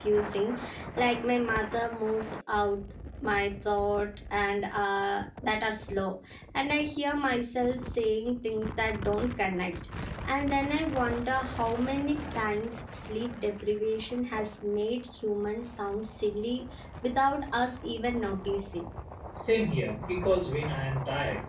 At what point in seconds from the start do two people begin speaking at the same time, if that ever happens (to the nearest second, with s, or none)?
none